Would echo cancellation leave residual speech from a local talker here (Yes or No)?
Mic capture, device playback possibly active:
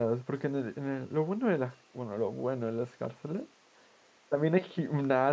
Yes